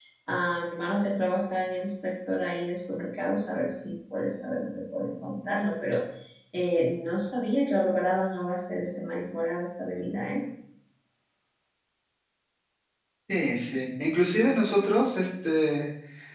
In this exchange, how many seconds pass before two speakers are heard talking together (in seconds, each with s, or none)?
none